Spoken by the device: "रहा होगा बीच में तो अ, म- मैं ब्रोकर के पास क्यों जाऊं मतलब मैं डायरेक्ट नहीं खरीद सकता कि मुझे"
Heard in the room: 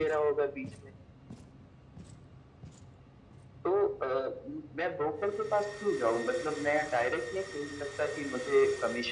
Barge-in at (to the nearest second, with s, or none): none